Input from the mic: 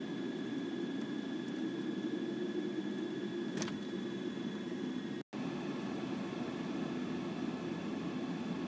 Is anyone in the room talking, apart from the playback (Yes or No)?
No